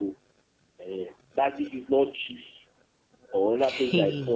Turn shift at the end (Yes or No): No